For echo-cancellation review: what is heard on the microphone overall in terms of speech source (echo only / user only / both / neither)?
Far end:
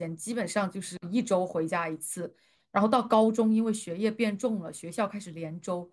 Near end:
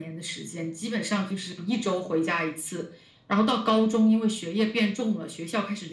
echo only